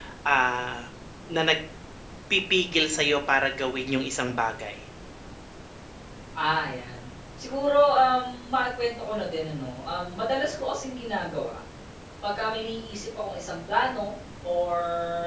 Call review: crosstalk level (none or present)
none